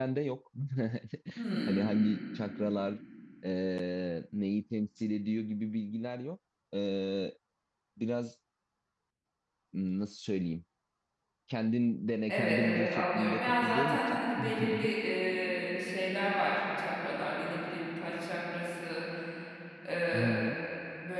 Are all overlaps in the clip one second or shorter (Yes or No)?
No